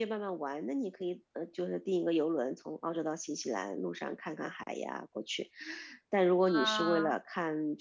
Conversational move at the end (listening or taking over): listening